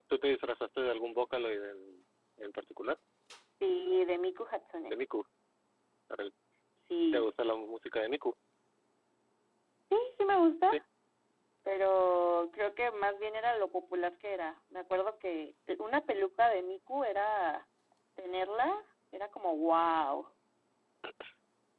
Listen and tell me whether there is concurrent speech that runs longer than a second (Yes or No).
No